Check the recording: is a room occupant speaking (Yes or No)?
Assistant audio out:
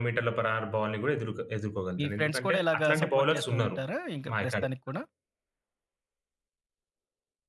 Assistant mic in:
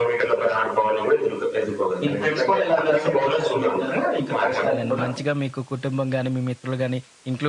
Yes